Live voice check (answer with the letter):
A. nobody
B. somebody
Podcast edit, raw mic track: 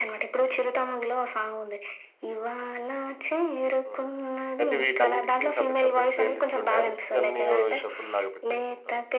B